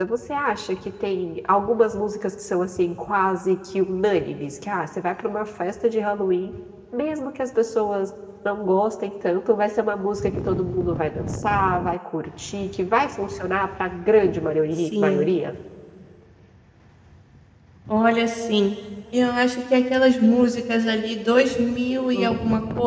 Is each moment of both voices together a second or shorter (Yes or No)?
Yes